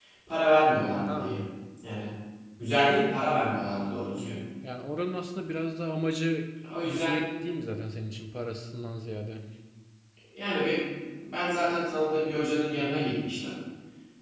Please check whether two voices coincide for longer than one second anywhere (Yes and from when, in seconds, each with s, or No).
No